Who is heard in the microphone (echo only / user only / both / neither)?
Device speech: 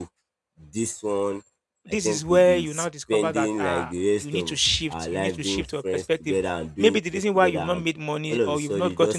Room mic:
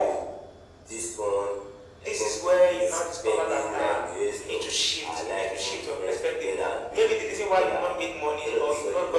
echo only